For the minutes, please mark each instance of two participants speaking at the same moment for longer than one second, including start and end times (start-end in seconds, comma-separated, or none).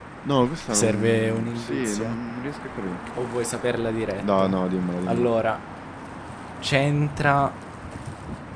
0.7-2.1